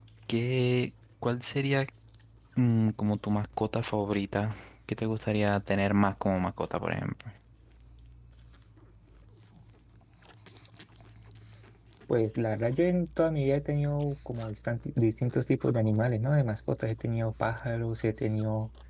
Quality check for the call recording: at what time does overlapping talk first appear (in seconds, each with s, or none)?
none